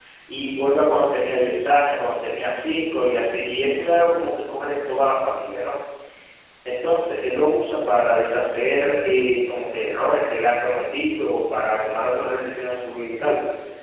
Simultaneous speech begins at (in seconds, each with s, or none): none